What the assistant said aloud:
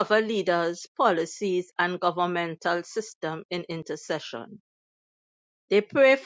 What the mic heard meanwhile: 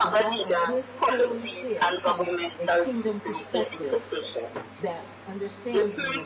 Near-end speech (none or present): present